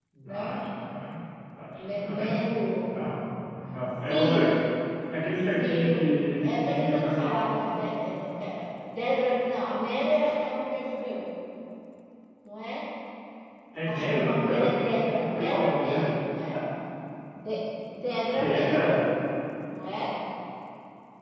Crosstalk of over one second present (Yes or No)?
Yes